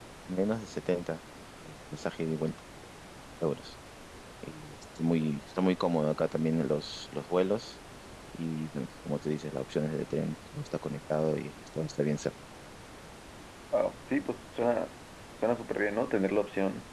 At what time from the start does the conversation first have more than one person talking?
none

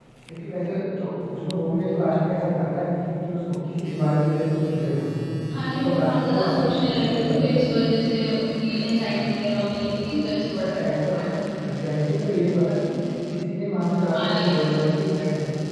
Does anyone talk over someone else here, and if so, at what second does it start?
5.7 s

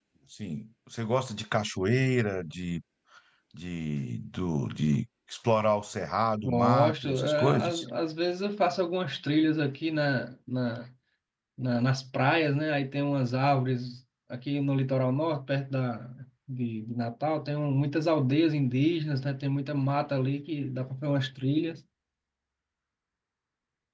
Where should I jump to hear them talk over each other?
6.4 s

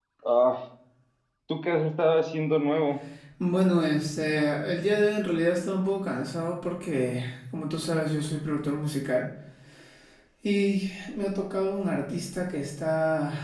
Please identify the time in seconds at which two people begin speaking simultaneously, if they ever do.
none

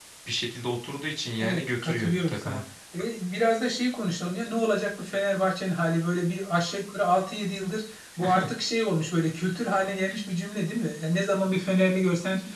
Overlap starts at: 1.4 s

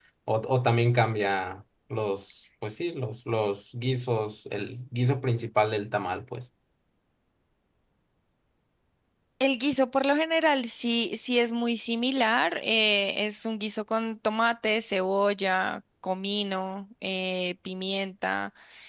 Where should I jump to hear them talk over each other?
none

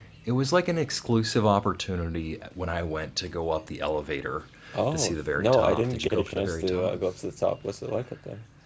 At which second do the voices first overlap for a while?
4.9 s

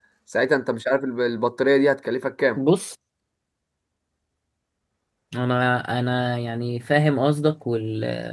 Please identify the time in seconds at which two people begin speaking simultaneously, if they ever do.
none

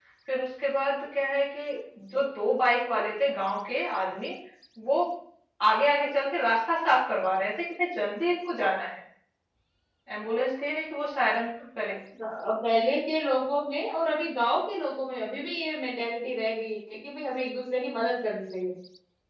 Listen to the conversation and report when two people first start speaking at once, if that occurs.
none

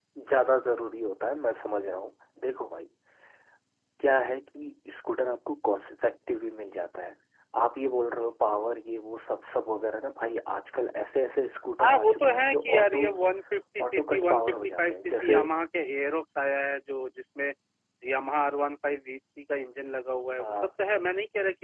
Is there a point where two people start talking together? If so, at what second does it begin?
11.8 s

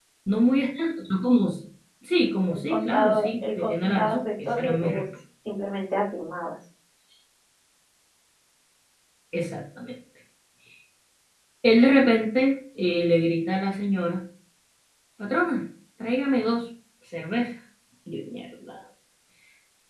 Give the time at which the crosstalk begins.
2.5 s

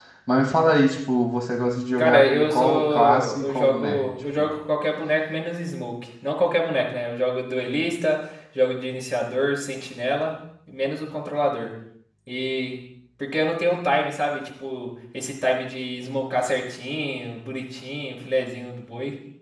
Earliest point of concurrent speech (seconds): 2.0 s

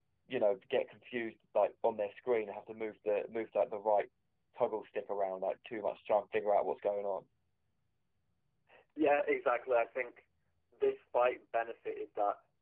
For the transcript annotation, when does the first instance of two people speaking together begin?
none

